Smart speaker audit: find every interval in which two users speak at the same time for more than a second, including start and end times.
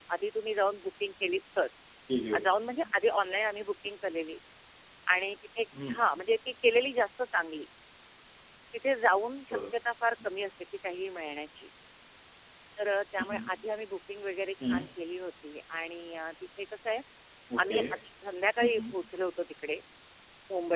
none

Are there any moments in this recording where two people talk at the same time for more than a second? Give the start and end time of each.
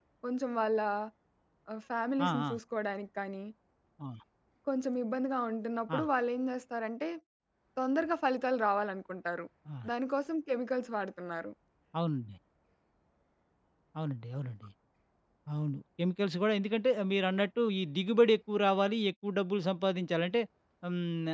none

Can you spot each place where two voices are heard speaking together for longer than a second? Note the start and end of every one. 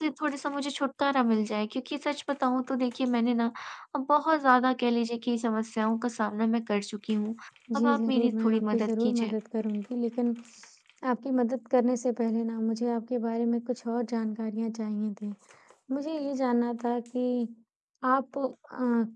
7.8-9.3

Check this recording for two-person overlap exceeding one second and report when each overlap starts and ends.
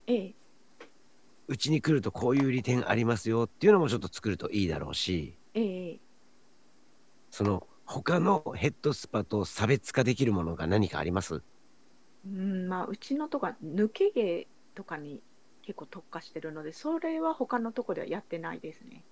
none

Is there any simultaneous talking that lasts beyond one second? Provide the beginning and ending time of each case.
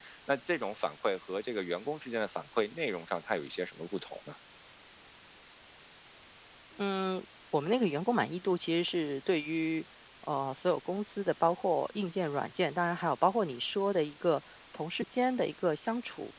none

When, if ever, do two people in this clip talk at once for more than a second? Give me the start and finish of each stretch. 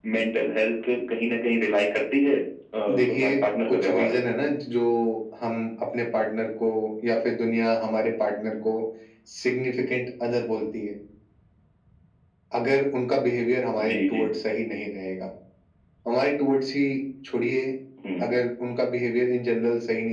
2.9-4.2

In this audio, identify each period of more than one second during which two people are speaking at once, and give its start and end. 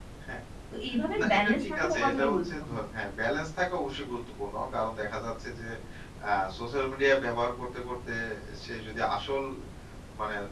1.2-2.7

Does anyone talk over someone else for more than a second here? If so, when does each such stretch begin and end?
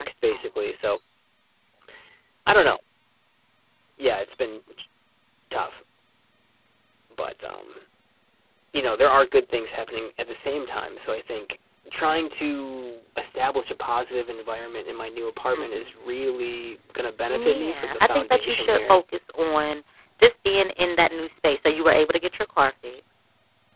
17.3-19.0

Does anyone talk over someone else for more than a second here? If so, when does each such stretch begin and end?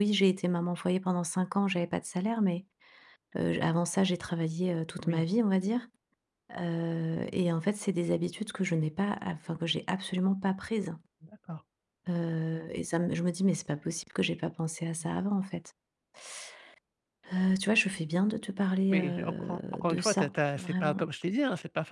18.9-21.0

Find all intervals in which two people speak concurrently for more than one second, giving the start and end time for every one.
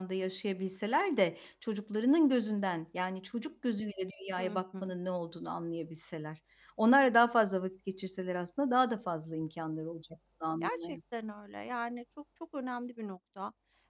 none

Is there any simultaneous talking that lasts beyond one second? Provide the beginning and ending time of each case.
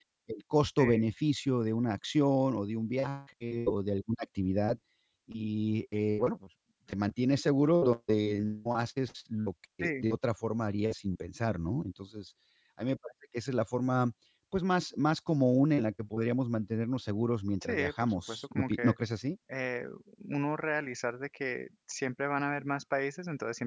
17.6-18.9

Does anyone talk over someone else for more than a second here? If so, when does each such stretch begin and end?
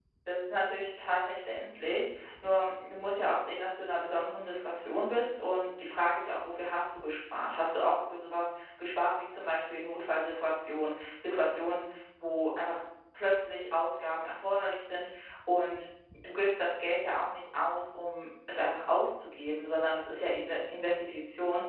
none

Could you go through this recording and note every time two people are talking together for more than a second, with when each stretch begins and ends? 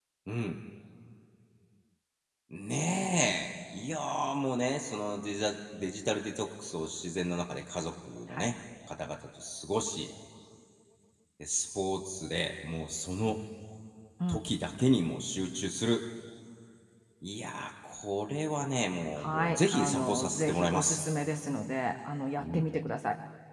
19.2-21.0

